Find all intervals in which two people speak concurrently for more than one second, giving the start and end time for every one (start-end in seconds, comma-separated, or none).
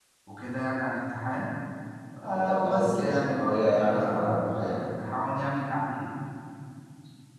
2.3-4.9